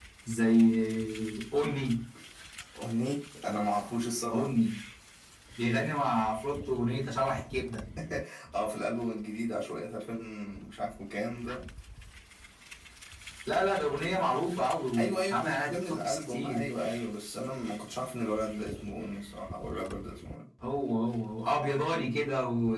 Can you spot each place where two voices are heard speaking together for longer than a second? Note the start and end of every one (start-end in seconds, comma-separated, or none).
15.0-16.6